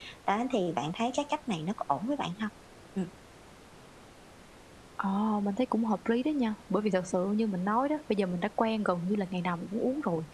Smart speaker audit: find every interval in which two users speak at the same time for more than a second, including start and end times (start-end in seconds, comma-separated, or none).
none